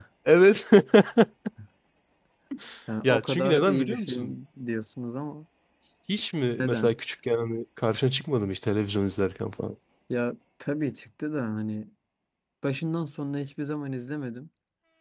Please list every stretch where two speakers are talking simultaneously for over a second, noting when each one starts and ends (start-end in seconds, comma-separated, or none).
3.0-4.3